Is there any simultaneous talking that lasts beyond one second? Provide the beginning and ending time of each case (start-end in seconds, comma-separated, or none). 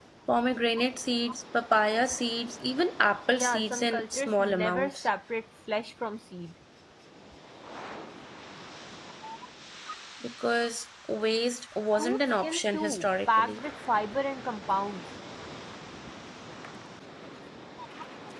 3.3-4.9, 12.0-13.6